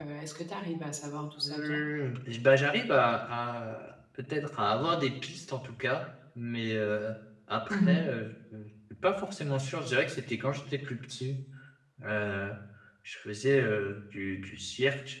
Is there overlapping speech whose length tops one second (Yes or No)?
No